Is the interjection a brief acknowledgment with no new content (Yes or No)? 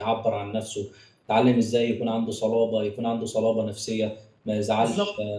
Yes